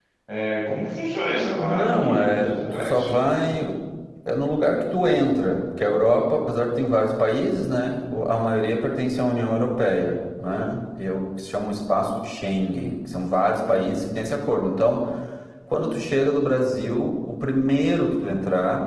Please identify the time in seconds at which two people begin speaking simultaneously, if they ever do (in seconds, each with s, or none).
1.6 s